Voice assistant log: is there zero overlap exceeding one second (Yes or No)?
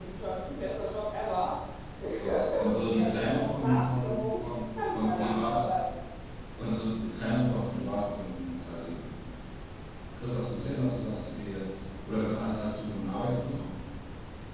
No